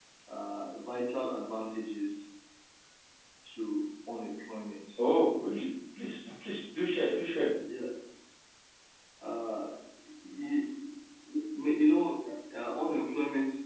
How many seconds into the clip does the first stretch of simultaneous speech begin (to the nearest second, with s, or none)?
none